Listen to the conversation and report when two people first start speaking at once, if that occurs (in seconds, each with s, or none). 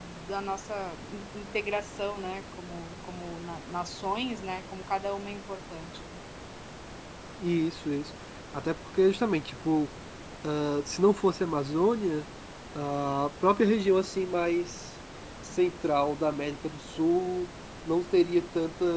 none